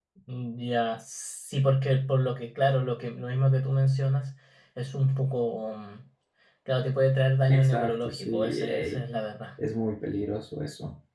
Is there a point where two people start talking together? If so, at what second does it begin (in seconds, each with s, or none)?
7.5 s